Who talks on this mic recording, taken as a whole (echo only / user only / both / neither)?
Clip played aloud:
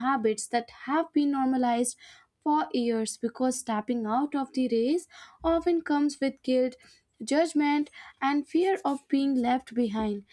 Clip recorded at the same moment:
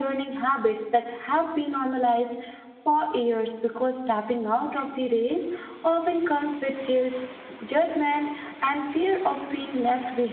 echo only